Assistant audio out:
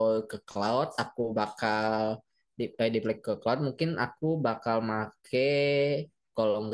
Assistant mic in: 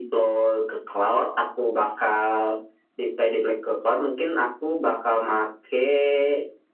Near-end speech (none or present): none